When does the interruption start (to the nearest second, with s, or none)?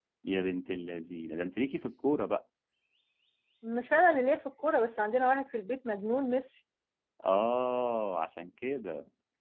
none